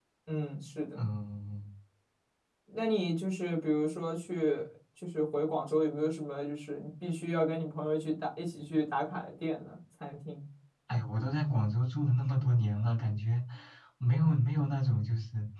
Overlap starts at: none

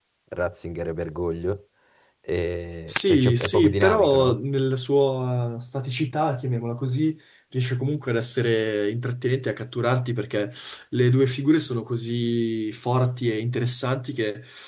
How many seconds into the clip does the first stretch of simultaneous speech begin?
2.9 s

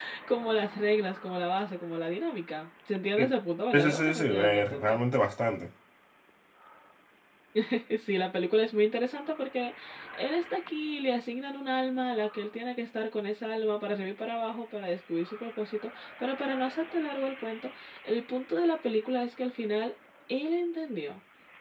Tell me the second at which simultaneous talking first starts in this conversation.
3.7 s

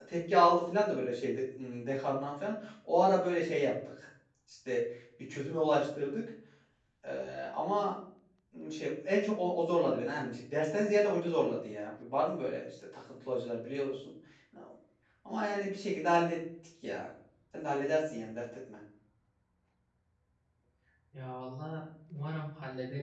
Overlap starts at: none

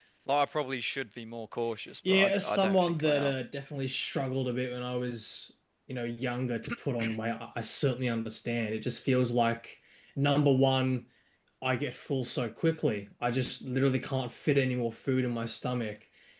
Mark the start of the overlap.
2.0 s

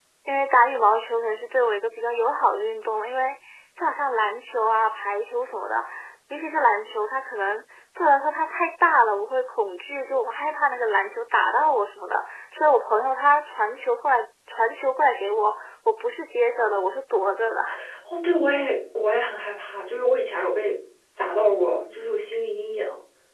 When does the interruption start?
none

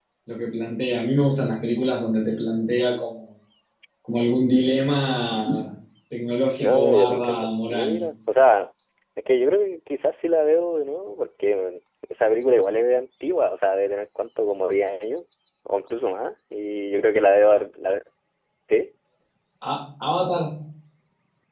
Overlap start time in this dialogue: 6.6 s

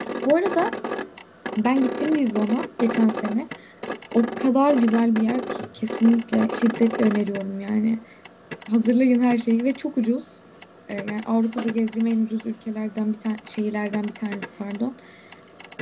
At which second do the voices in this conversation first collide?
none

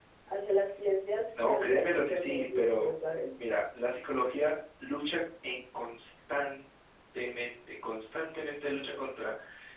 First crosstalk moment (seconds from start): 1.4 s

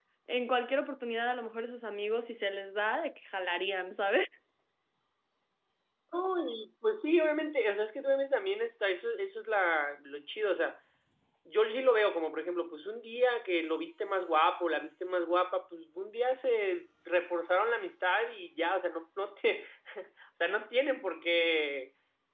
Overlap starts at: none

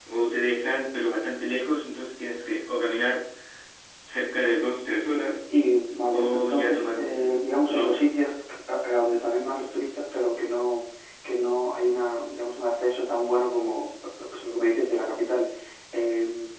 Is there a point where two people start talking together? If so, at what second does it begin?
6.1 s

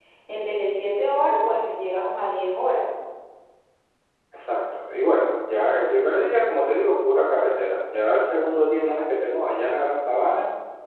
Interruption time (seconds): none

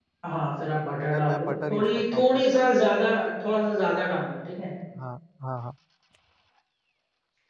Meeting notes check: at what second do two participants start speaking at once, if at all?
1.1 s

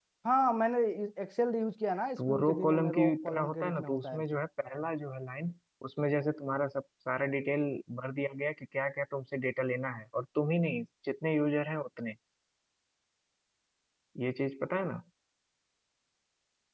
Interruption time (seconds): 2.2 s

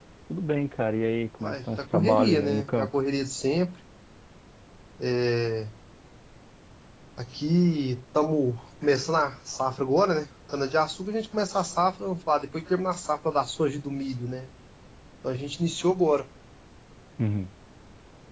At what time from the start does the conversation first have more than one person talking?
1.4 s

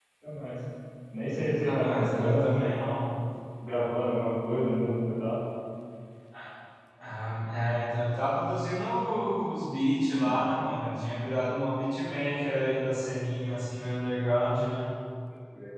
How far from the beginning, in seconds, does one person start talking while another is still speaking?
1.3 s

